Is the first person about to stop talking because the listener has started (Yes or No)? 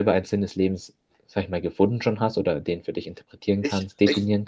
Yes